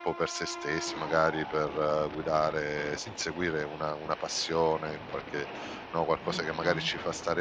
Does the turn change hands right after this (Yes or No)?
No